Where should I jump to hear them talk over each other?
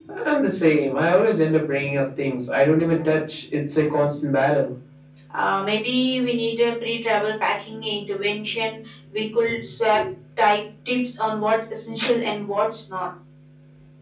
none

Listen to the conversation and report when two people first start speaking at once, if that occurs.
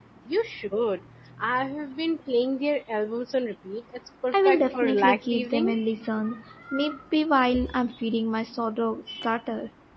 4.3 s

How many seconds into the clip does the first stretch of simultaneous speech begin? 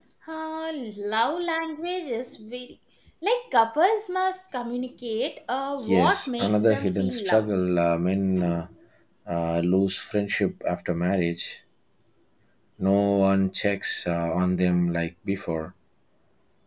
5.8 s

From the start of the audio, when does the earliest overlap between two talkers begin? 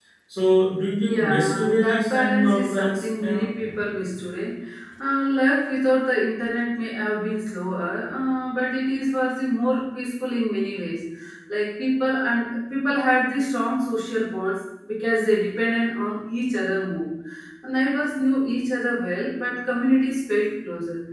1.0 s

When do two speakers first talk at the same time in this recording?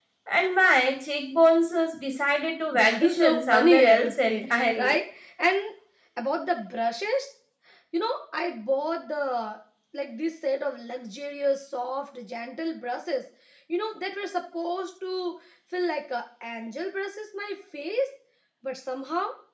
2.7 s

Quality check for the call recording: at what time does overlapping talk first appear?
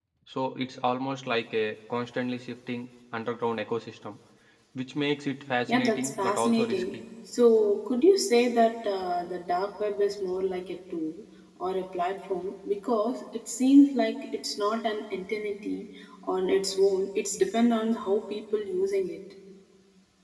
5.7 s

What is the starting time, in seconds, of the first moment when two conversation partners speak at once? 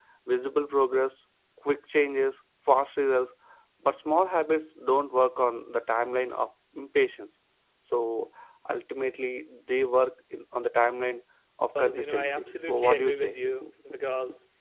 11.8 s

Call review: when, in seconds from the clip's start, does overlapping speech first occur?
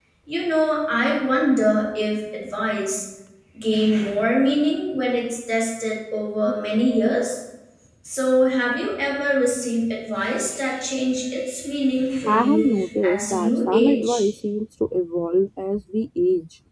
12.3 s

